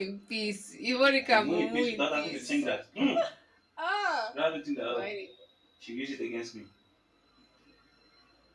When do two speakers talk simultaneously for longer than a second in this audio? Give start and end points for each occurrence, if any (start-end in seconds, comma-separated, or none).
1.2-2.6